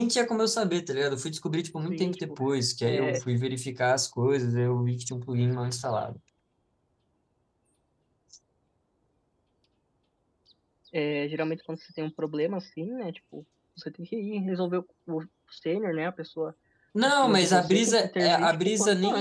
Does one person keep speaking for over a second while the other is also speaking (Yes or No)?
Yes